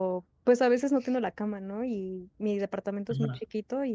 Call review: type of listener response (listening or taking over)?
listening